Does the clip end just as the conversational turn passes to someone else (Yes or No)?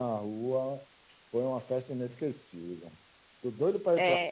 Yes